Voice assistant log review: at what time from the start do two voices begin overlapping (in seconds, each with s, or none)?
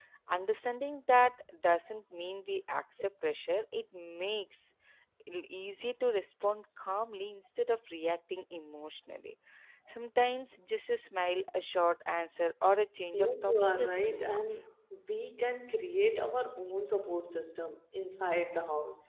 13.1 s